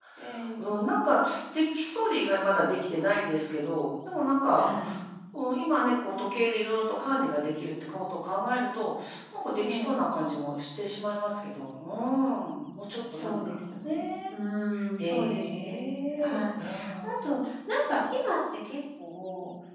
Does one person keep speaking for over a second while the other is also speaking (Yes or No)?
Yes